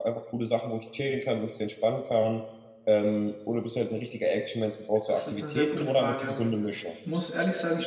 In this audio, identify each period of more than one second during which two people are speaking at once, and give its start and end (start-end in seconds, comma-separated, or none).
5.1-6.8